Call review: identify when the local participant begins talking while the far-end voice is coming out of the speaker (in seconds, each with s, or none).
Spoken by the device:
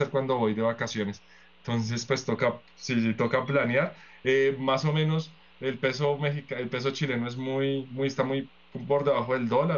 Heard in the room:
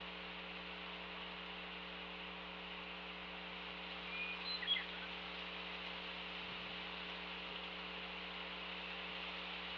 none